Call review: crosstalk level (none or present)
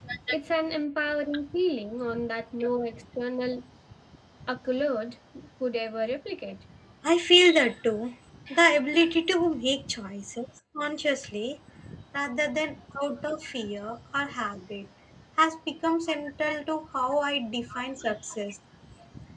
none